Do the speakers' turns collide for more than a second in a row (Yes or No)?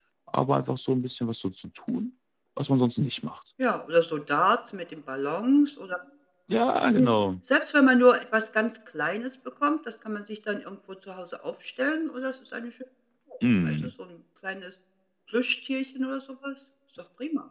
No